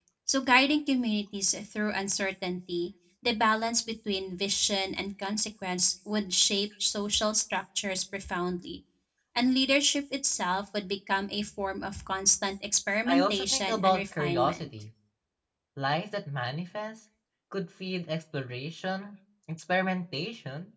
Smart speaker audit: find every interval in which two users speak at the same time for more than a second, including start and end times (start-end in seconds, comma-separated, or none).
13.1-14.7